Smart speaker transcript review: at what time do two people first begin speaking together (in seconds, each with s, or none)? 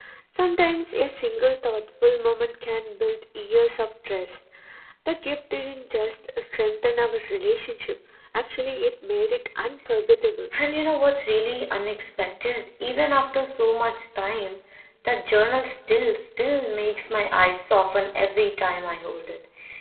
none